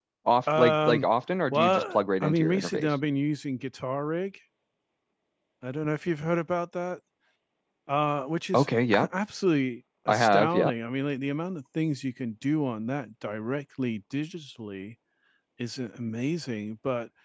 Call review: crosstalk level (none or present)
present